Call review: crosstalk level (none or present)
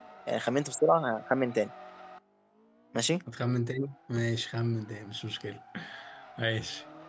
none